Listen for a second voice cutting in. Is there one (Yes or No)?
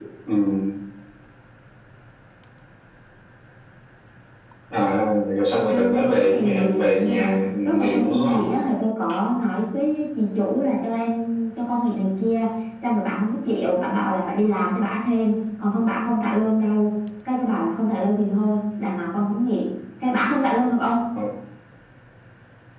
Yes